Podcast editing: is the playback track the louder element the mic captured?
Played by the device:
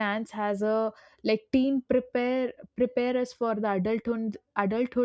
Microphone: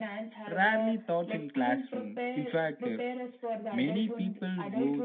No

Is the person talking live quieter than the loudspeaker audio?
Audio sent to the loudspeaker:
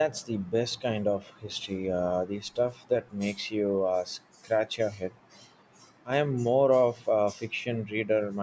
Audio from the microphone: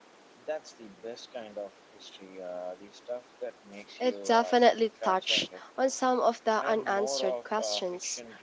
No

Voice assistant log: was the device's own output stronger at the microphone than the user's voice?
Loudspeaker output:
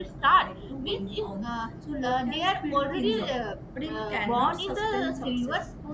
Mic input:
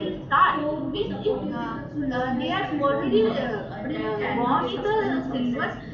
Yes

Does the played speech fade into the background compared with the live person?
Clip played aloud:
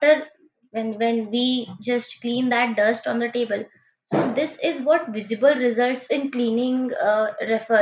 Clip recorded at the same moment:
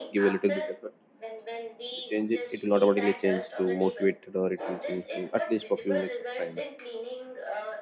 Yes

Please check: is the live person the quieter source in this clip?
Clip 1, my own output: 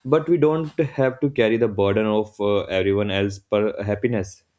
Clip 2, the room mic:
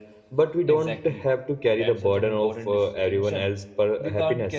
Yes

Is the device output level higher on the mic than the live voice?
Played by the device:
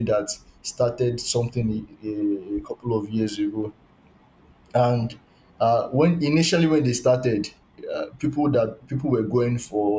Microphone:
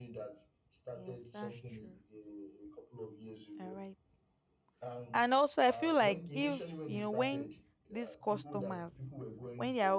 No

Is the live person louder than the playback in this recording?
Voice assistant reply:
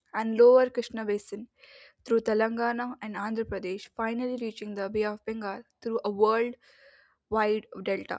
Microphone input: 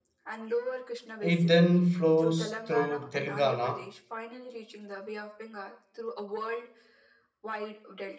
Yes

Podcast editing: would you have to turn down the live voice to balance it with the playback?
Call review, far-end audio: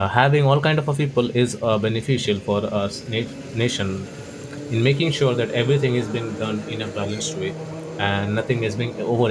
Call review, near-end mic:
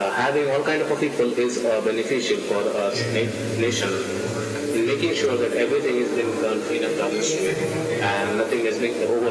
No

